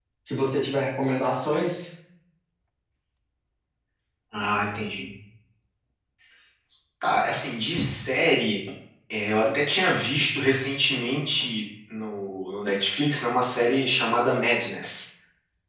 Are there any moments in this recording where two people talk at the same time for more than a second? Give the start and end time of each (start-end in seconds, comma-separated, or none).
none